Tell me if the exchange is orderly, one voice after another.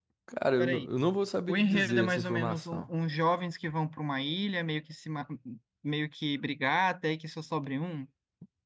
No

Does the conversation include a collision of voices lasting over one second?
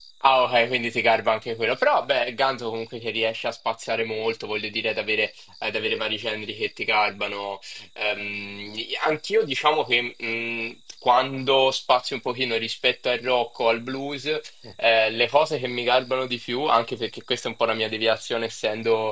No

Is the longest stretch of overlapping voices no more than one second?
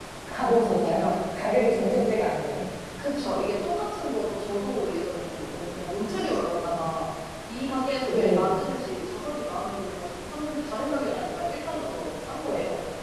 Yes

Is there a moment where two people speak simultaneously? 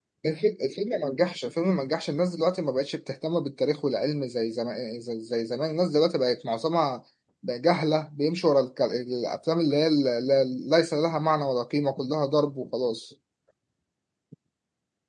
No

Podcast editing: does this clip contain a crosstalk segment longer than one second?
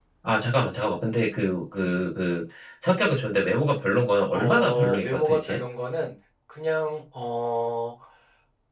Yes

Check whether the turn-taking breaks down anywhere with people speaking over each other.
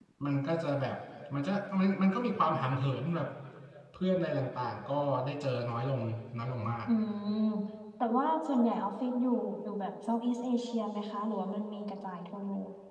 No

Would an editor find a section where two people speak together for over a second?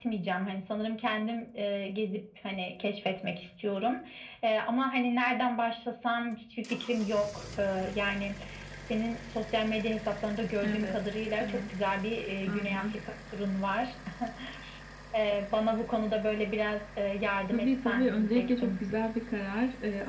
Yes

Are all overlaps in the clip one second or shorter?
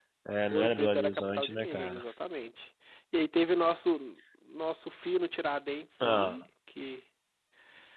No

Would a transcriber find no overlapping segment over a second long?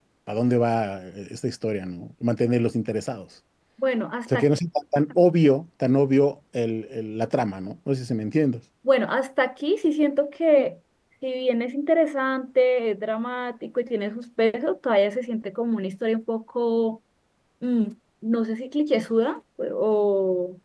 Yes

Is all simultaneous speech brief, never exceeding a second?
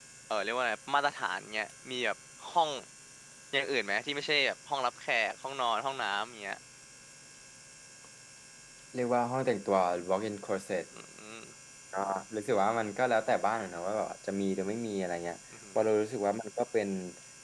Yes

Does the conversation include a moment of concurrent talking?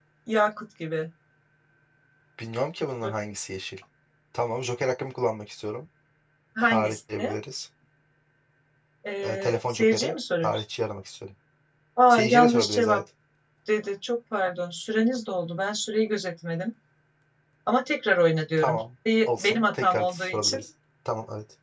Yes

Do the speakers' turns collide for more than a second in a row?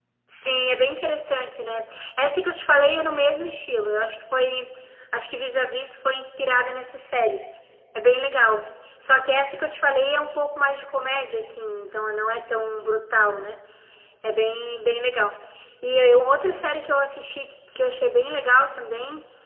No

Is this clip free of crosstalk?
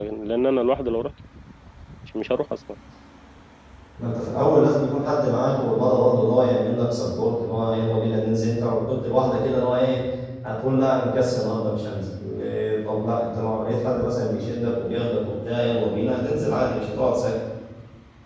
Yes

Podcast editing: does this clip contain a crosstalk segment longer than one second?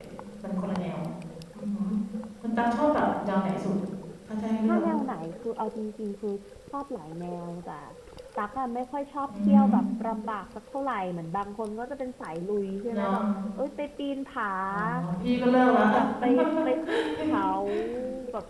No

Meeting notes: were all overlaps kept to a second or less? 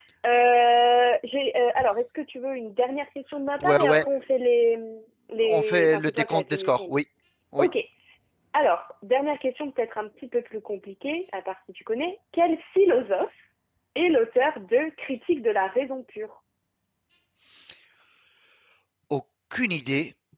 No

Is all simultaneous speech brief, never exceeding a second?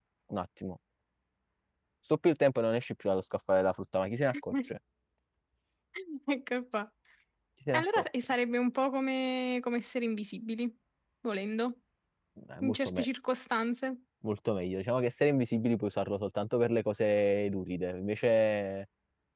Yes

